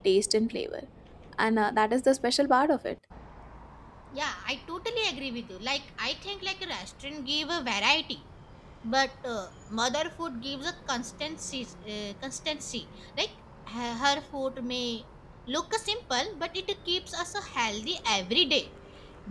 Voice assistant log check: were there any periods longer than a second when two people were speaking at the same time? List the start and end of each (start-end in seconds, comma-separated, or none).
none